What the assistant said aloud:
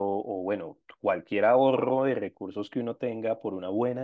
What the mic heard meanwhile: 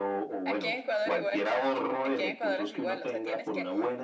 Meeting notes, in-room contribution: present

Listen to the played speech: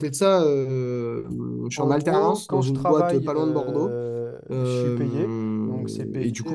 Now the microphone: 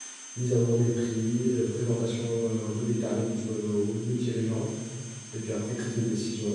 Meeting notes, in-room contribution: present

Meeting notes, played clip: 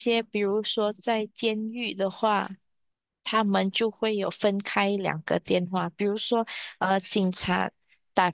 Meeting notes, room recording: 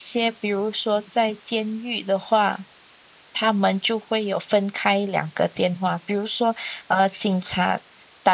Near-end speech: none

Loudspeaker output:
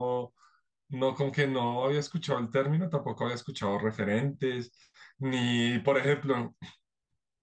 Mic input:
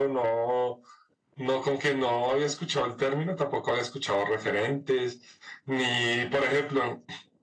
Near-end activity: none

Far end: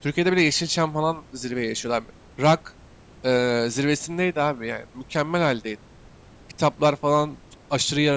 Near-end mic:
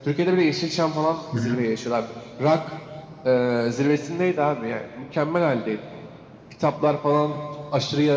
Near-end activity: present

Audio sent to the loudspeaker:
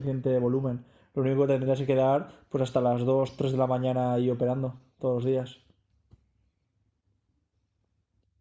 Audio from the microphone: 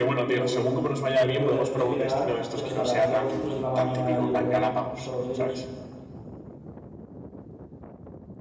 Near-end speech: present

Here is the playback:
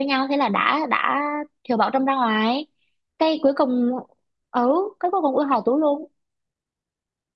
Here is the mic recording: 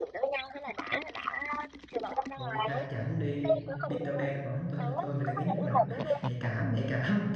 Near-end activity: present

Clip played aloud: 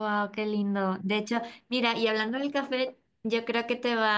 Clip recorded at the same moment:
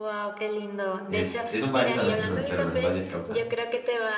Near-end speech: present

